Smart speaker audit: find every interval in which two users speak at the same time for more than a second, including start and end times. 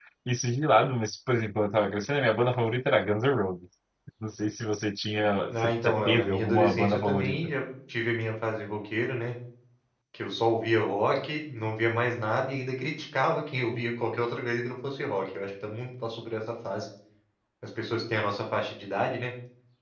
5.5-7.4

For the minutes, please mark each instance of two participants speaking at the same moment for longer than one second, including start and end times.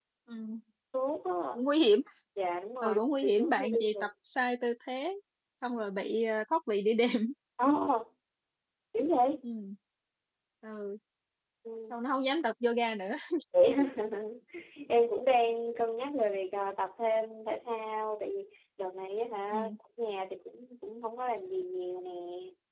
2.8-4.1

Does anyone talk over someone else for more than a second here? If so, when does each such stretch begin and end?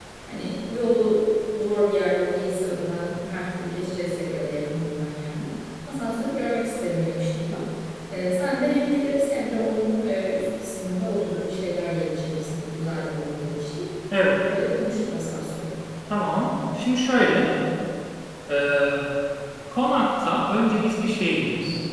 none

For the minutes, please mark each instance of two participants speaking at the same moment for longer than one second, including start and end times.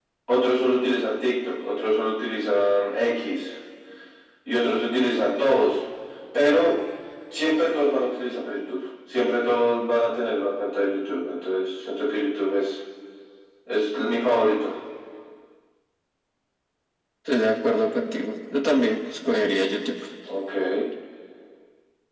none

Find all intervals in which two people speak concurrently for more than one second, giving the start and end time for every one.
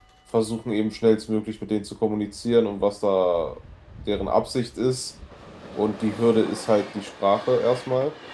none

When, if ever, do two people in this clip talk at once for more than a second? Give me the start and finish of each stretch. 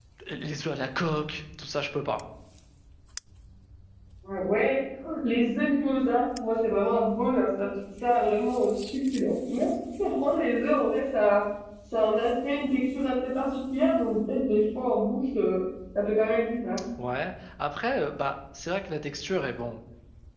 none

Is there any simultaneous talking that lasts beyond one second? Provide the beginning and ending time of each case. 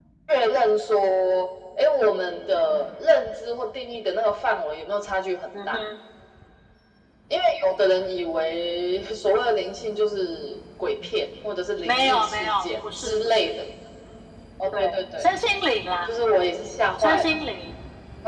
11.8-13.6

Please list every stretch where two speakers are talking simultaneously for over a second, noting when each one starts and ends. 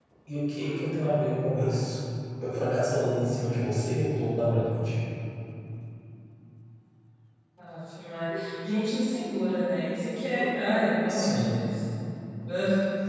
none

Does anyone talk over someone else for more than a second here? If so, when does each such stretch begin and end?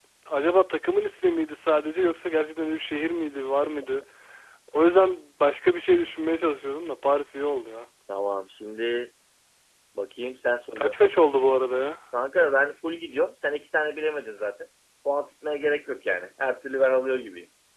none

